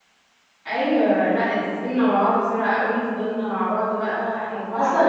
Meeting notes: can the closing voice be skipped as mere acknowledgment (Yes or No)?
No